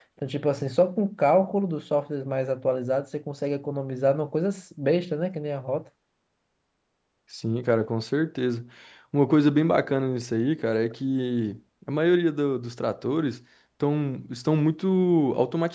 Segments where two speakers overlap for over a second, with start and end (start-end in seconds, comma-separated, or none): none